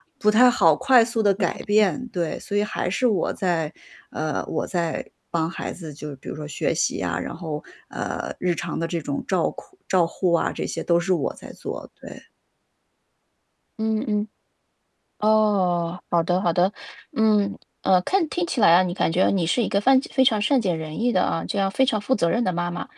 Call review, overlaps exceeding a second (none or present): none